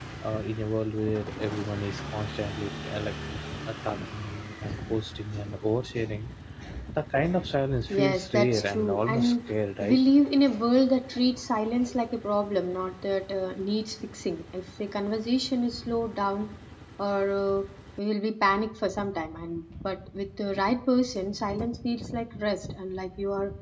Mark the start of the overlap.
8 s

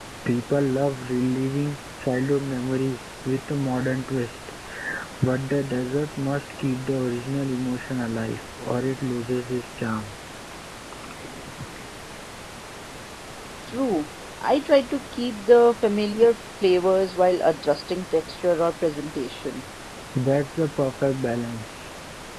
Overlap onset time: none

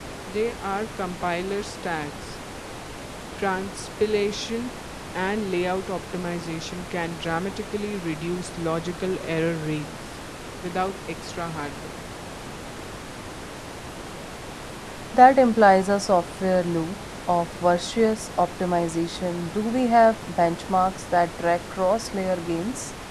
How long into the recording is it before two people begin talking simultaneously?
none

